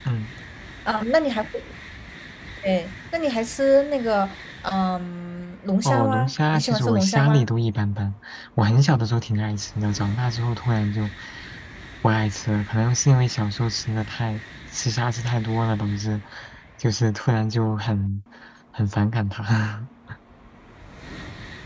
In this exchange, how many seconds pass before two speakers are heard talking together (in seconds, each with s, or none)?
5.8 s